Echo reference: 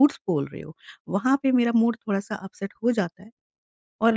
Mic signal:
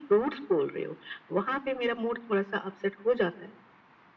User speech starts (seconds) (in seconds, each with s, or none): none